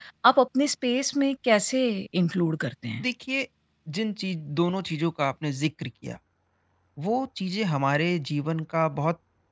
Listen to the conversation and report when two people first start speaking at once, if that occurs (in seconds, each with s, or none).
none